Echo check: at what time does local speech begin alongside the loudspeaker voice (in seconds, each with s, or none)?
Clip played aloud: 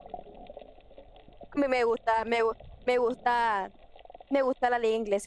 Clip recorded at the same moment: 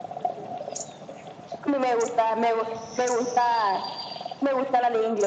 none